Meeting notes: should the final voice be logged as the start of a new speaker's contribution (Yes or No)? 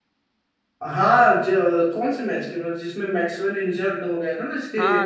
Yes